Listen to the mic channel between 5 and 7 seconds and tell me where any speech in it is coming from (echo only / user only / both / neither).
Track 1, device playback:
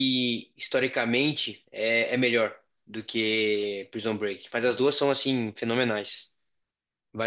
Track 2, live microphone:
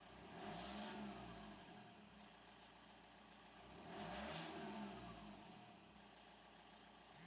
neither